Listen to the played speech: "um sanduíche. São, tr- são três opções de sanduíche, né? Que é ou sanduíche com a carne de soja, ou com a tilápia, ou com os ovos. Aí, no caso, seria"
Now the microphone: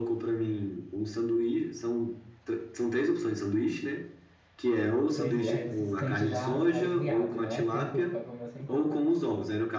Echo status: present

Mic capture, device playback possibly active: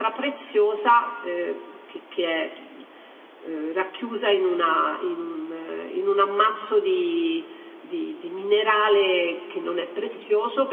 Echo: none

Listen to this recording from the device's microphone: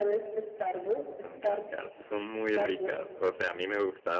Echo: present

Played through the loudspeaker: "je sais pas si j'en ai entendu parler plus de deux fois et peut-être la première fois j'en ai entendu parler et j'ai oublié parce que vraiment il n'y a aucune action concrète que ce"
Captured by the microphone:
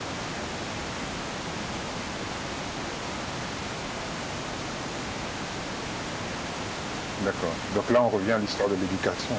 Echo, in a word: none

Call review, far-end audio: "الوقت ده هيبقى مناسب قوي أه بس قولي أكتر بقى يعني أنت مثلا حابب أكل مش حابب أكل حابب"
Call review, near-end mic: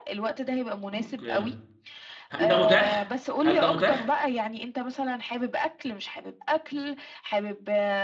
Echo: present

